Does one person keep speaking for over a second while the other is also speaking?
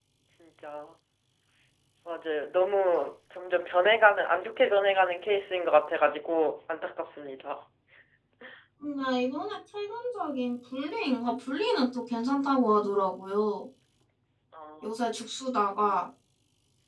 No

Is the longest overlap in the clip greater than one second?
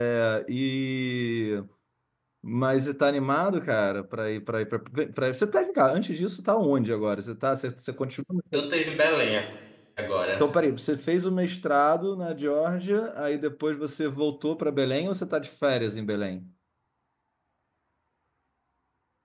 No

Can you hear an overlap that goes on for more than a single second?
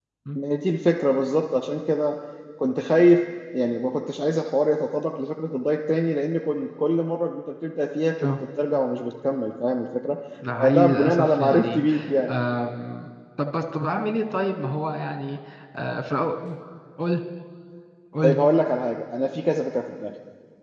Yes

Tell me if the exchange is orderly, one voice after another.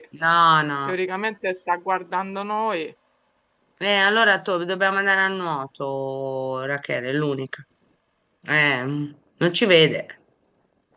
Yes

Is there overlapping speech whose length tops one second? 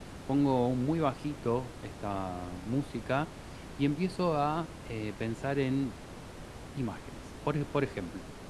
No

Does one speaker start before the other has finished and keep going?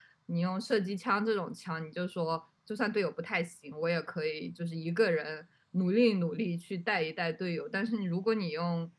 No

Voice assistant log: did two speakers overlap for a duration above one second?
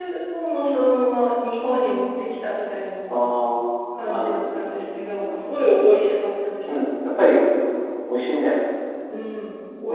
Yes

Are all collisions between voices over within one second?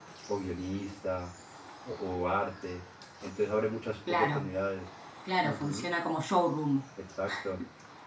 Yes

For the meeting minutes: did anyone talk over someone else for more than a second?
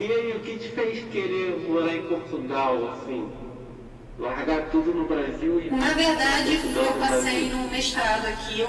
Yes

